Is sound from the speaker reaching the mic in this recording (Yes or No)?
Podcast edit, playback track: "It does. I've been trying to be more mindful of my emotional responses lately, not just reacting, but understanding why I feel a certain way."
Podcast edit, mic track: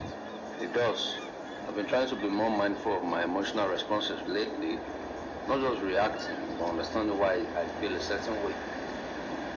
Yes